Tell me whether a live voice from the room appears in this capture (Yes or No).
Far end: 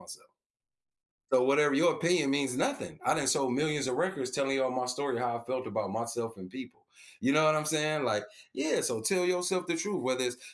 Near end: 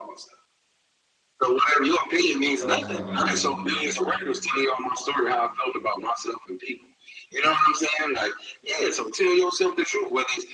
Yes